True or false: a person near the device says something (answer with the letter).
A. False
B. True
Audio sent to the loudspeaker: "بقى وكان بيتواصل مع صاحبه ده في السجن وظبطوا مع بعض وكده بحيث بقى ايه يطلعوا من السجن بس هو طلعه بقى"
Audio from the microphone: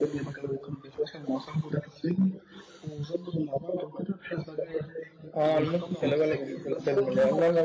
B